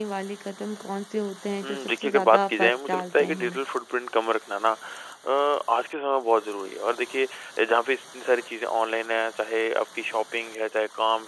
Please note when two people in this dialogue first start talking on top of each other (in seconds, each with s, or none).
1.6 s